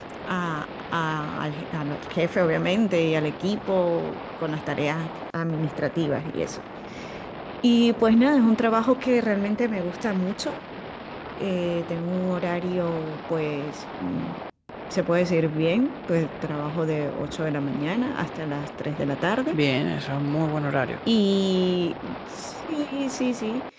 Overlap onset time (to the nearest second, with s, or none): none